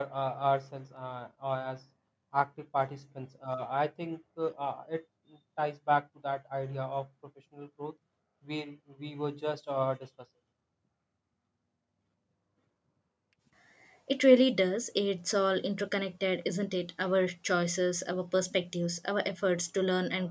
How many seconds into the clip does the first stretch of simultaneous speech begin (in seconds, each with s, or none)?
none